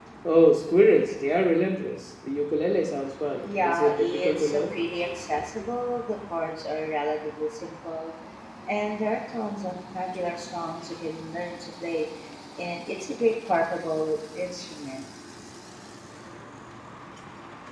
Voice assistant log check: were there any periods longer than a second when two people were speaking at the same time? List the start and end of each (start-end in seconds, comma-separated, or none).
3.4-4.7